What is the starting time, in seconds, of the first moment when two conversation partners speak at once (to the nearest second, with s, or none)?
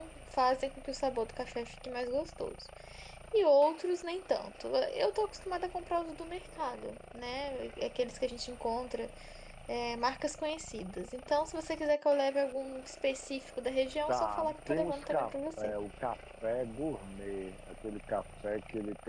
14 s